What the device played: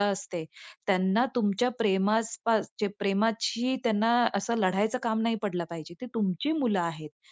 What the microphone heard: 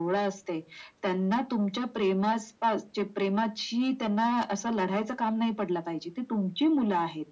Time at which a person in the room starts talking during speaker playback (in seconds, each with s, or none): none